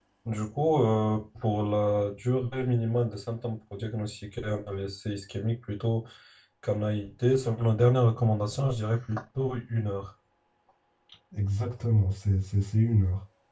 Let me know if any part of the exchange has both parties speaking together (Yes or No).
No